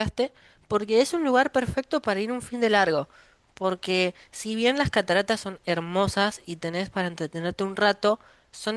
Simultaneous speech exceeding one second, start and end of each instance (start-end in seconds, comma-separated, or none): none